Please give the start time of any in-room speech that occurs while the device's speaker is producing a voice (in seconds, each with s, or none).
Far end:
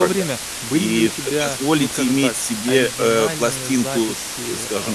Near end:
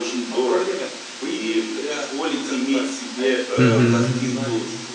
3.6 s